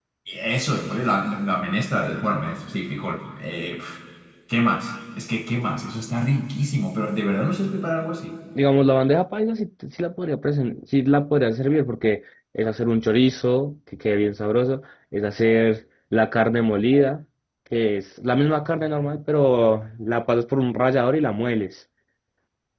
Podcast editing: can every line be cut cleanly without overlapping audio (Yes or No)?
Yes